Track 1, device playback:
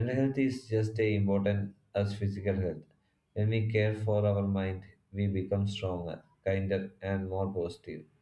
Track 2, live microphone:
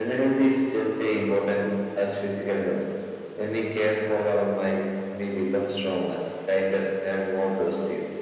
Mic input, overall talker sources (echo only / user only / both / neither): echo only